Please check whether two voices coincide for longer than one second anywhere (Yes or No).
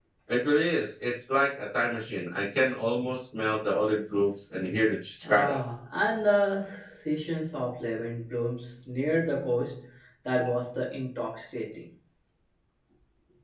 No